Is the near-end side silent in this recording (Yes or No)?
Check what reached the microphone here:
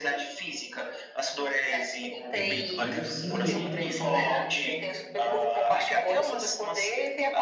No